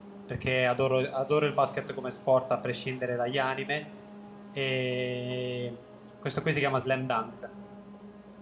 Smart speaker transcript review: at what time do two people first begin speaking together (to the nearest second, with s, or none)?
none